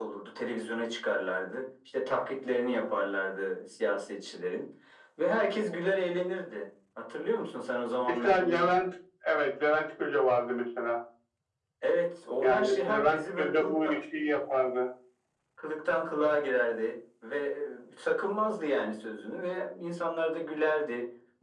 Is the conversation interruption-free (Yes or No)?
No